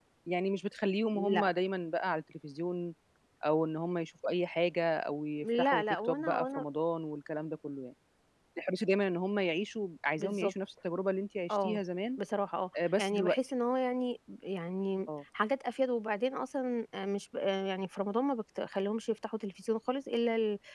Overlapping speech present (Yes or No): Yes